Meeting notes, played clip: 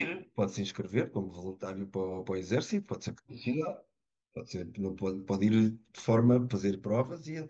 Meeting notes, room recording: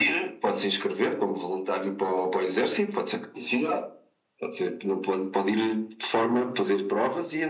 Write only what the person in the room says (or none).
none